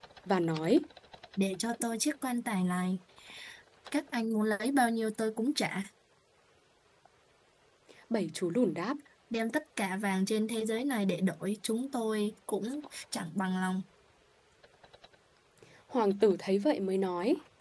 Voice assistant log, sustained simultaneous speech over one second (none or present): none